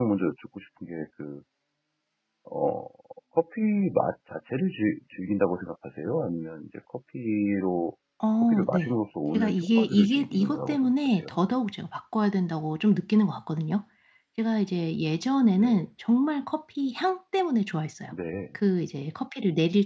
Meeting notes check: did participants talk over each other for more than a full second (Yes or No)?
Yes